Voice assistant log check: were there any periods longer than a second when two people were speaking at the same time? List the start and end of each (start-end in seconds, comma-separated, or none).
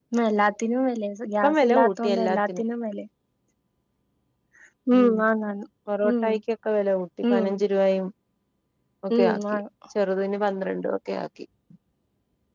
1.4-2.6